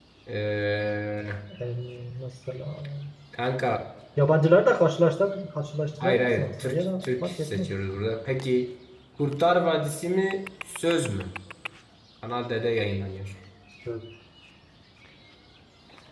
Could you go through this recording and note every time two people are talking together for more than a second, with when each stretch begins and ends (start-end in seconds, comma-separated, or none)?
6.0-7.7